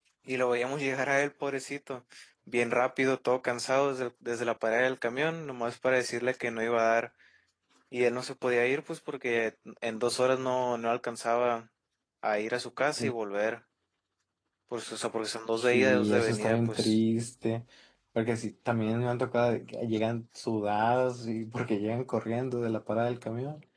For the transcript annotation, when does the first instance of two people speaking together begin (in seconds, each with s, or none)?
15.6 s